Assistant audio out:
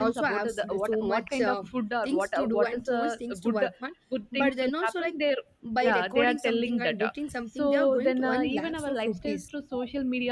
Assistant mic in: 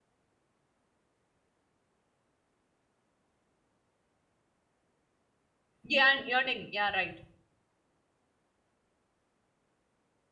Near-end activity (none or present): present